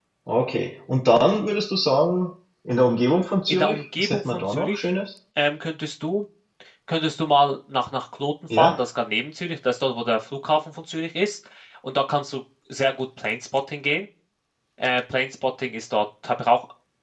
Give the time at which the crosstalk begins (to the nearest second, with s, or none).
3 s